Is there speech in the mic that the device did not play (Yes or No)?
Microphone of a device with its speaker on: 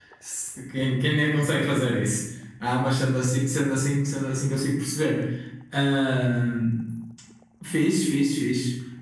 Yes